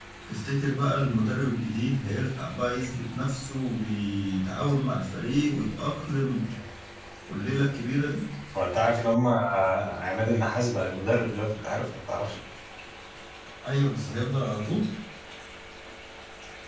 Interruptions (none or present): none